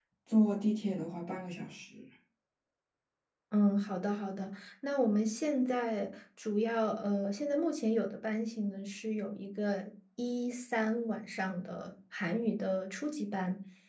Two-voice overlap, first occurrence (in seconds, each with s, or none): none